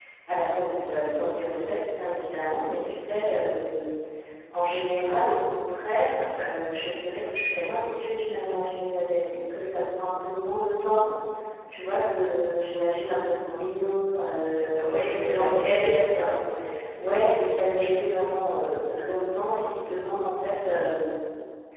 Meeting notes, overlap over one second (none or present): present